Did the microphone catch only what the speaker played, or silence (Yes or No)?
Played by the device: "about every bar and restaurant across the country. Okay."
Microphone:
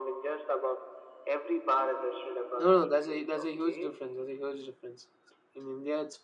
No